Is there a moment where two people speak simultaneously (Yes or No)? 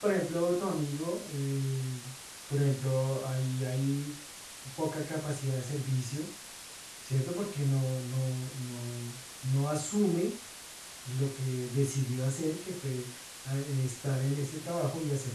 No